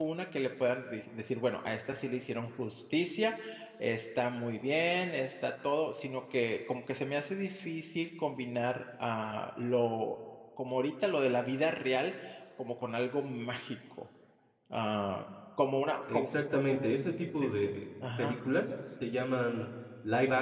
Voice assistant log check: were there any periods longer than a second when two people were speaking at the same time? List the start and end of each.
none

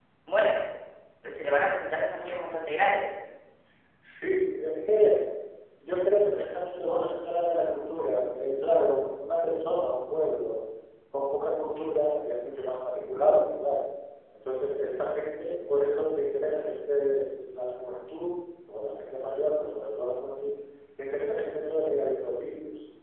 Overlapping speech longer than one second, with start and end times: none

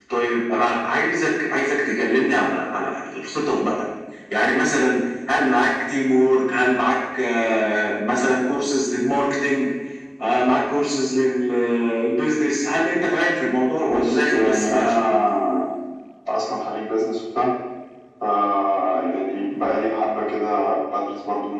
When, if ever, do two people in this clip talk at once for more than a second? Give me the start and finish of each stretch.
13.9-15.2

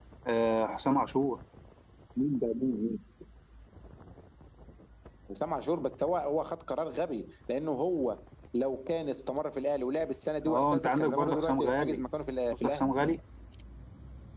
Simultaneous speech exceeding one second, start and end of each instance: 10.5-12.0

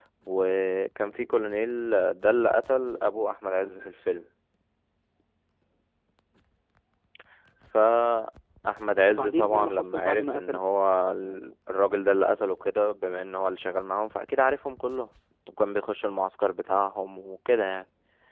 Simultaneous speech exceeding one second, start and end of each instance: 9.1-10.6

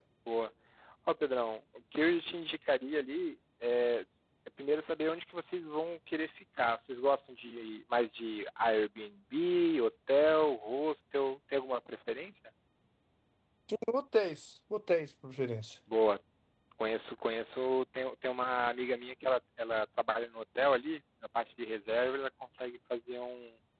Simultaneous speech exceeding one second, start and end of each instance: none

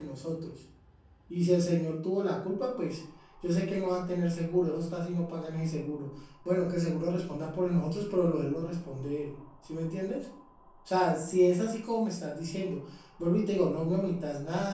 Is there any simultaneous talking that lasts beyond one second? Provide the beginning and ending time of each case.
none

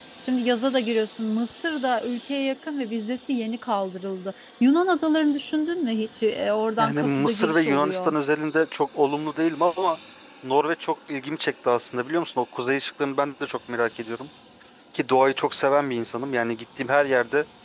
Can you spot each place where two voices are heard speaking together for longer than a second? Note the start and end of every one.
6.8-8.1

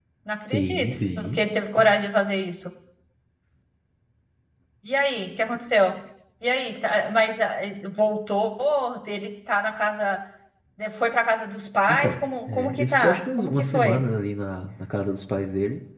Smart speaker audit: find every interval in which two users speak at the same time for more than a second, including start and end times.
11.9-14.0

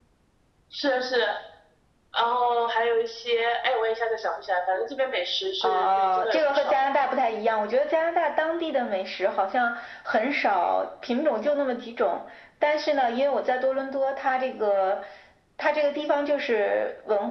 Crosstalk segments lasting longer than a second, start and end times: 5.6-6.8

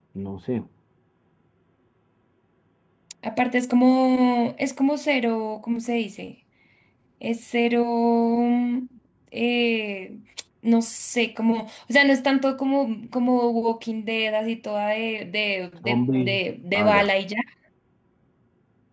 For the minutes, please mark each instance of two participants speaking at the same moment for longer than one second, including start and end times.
15.8-17.1

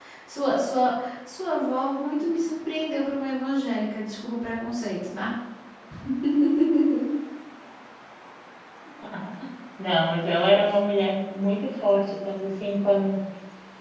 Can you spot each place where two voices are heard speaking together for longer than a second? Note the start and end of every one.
none

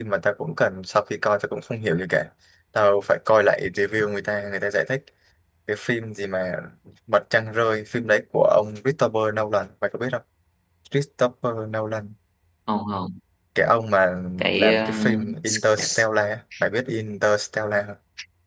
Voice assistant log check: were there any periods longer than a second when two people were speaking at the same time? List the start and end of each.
14.5-16.0

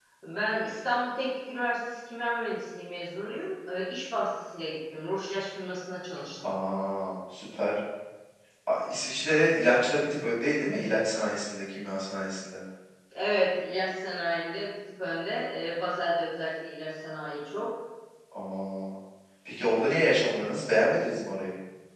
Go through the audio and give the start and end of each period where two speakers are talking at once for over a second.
none

